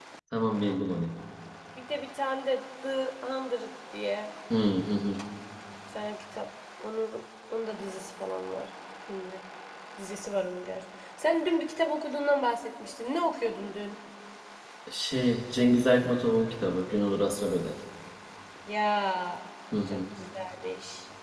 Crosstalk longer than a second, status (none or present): none